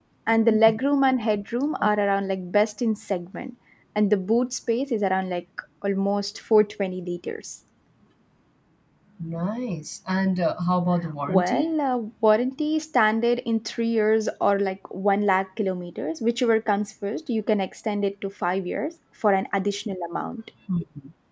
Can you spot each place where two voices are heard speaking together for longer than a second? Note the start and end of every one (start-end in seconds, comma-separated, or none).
none